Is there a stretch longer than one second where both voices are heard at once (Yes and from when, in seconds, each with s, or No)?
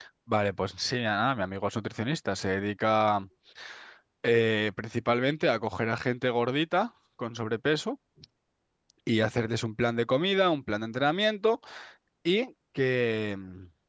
No